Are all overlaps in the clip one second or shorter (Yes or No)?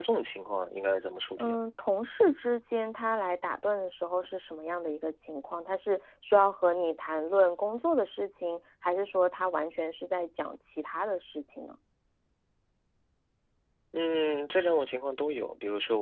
Yes